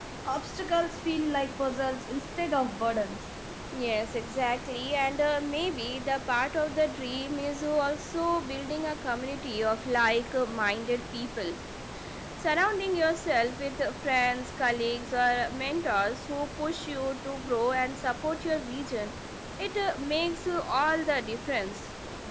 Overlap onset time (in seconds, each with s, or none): none